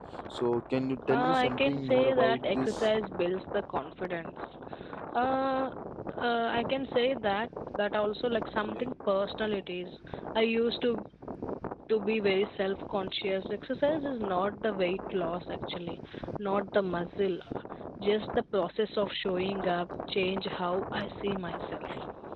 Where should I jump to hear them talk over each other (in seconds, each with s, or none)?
1.1 s